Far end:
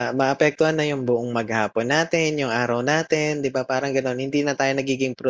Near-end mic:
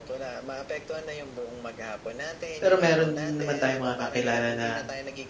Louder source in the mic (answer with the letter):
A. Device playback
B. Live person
B